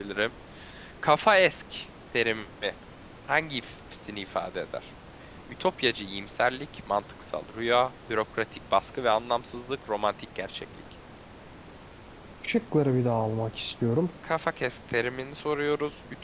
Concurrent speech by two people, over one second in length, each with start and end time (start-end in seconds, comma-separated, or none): none